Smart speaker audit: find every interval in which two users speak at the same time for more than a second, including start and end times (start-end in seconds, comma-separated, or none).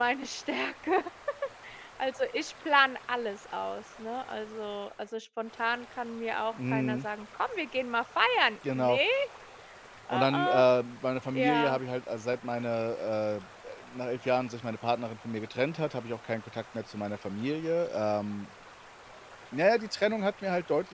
none